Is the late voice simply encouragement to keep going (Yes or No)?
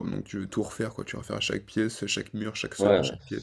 No